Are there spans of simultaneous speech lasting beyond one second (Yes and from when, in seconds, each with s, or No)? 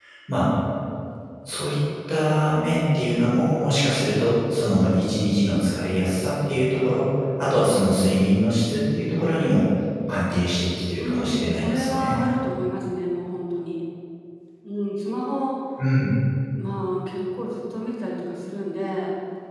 Yes, from 11.0 s